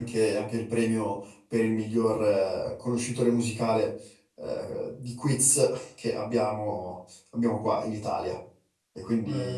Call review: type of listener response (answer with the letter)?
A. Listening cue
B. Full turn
B